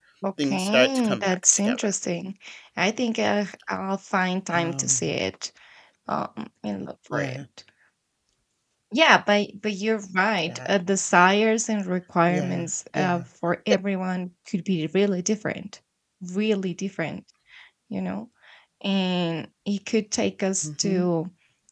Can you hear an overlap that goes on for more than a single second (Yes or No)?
Yes